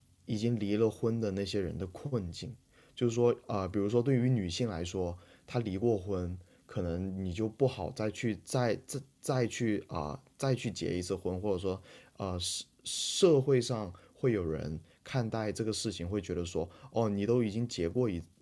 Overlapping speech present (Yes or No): No